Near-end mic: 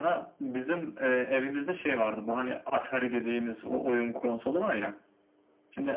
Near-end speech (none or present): none